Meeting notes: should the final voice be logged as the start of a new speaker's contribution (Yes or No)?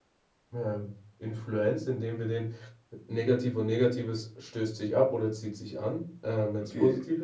No